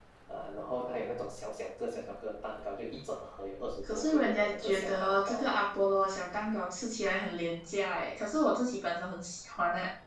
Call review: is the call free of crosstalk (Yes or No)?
No